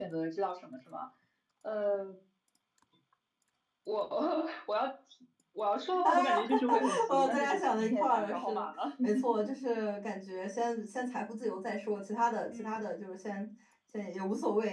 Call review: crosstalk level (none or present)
present